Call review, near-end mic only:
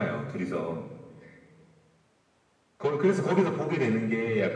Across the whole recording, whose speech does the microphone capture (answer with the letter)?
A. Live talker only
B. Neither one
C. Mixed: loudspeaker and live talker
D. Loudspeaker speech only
D